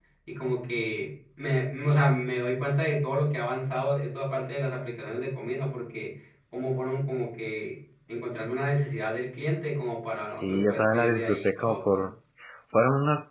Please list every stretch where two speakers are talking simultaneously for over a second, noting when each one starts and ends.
10.3-12.0

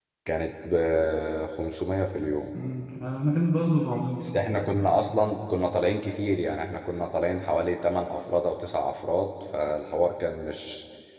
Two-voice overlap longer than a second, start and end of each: none

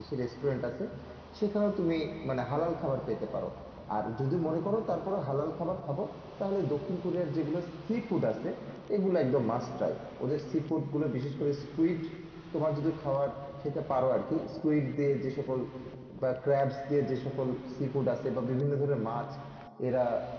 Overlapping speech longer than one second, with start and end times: none

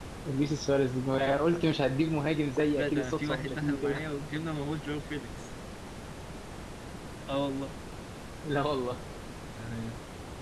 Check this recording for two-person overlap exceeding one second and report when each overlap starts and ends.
2.8-4.0

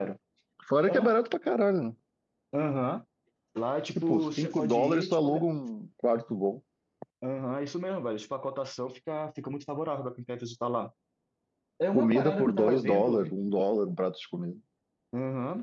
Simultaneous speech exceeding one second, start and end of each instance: 4.0-5.4, 11.9-13.2

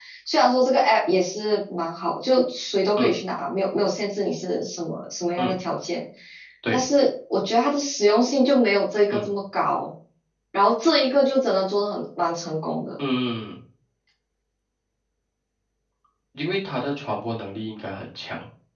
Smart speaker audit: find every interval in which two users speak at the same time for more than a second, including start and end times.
none

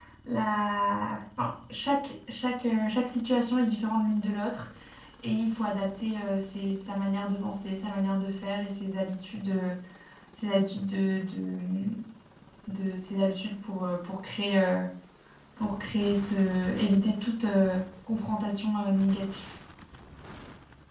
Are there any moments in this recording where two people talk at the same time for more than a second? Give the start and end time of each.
none

